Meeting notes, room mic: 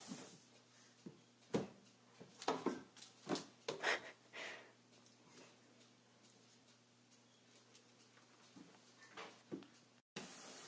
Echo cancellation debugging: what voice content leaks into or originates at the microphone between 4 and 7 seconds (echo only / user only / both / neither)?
neither